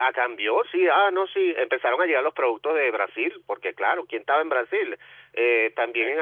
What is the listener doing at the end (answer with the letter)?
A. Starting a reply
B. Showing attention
B